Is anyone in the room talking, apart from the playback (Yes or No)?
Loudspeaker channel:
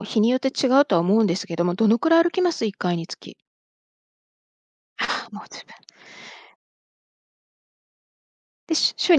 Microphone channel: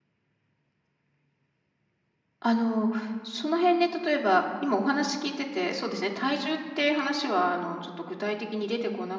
Yes